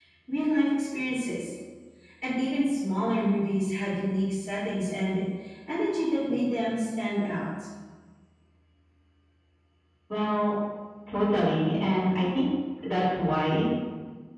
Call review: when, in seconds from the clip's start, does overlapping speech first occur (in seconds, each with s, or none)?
none